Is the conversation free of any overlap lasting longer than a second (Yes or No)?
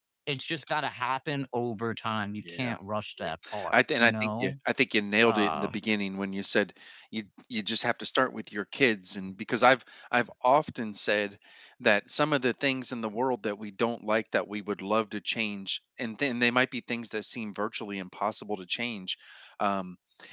No